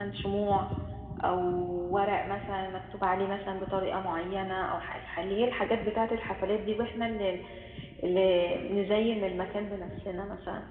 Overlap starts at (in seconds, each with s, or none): none